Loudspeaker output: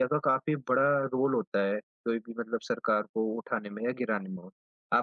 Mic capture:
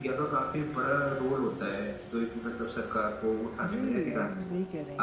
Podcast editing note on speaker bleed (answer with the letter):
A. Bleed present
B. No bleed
A